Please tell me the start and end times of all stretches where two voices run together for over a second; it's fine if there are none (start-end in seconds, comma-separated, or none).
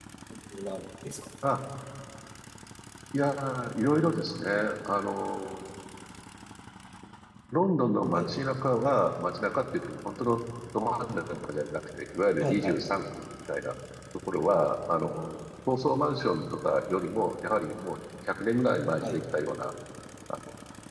none